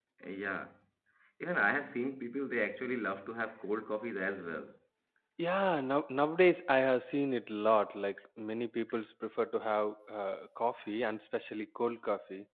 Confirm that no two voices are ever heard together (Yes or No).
Yes